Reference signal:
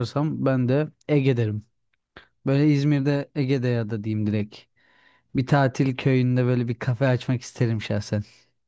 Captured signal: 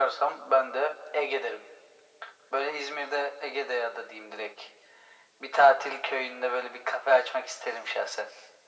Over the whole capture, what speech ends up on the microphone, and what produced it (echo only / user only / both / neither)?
echo only